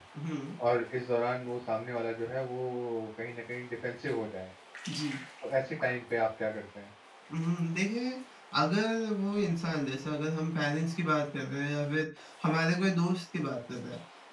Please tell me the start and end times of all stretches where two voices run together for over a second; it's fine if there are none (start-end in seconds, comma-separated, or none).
none